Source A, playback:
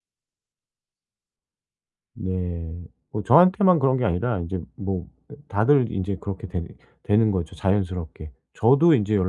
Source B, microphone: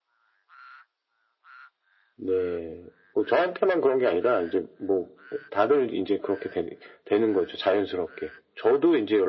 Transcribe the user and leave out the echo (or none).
none